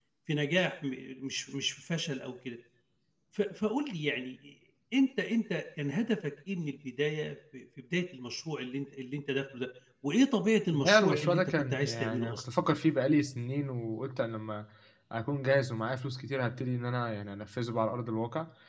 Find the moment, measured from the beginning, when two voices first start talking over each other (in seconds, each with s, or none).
10.7 s